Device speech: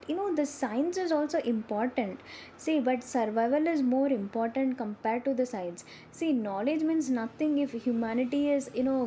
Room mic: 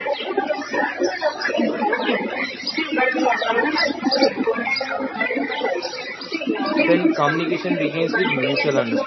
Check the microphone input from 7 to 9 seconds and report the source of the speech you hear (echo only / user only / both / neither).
both